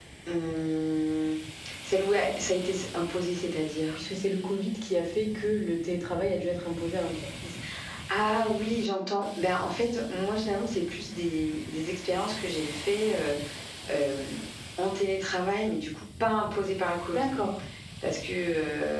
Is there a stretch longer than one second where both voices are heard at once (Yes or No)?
No